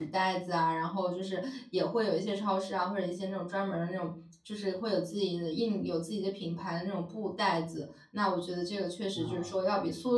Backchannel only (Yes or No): Yes